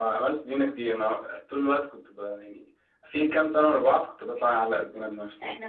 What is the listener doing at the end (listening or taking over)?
taking over